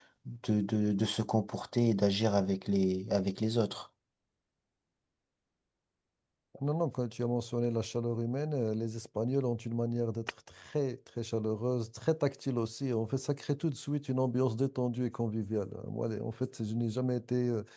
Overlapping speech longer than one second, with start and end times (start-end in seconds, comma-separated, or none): none